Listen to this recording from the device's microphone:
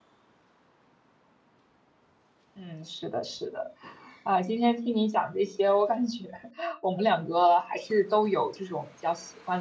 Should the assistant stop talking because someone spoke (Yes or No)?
Yes